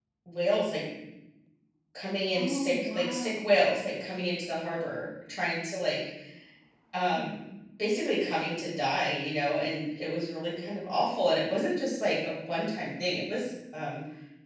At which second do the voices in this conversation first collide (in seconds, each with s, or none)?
2.3 s